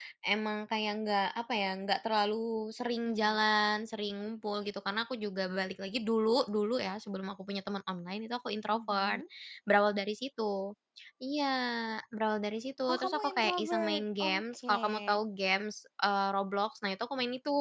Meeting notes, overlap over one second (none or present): present